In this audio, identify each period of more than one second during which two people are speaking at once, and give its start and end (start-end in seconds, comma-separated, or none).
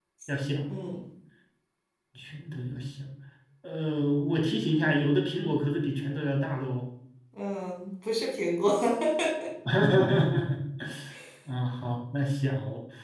none